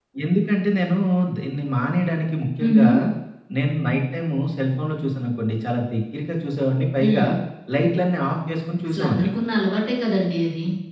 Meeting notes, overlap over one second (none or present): none